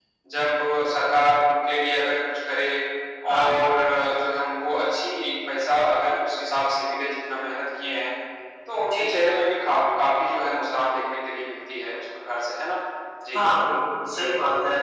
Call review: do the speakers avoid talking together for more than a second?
Yes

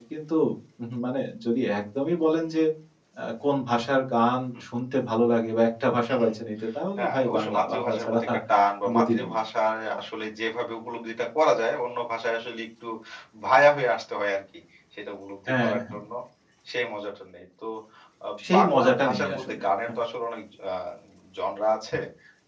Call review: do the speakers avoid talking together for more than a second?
No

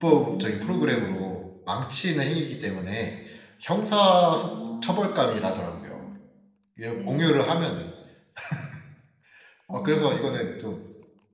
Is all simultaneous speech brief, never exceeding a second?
No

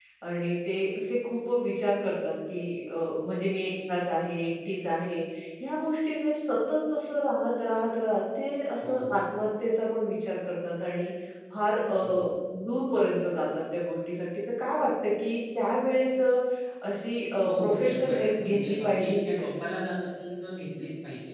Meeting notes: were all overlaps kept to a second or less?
No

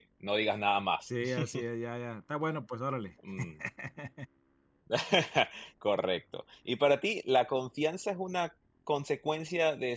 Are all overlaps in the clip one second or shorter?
Yes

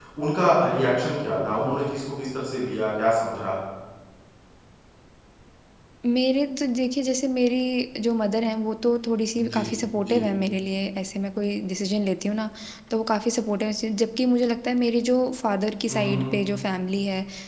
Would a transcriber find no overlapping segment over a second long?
Yes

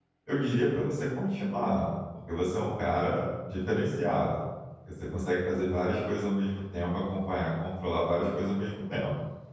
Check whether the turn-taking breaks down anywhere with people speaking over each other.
No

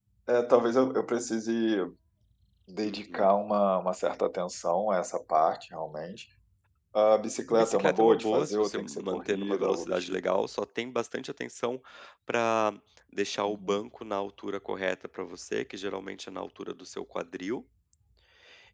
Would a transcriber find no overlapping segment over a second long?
No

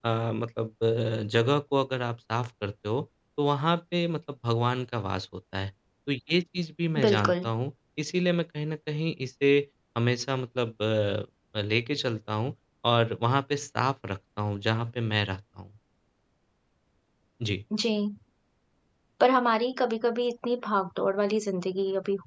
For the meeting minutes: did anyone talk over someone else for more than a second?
No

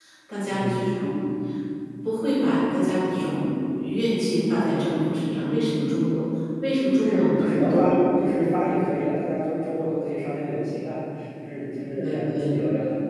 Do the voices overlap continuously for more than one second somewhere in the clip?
Yes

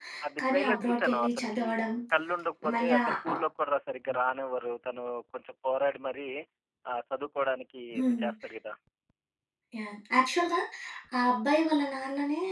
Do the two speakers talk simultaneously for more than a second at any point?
Yes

